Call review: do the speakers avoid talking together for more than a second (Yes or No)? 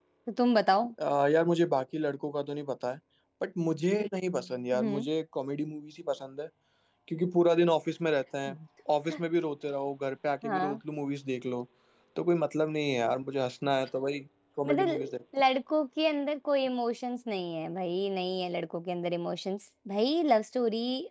Yes